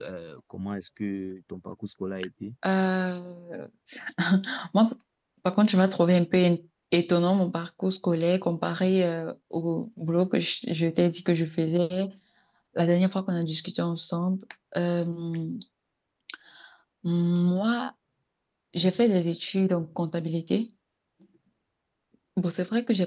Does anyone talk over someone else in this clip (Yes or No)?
No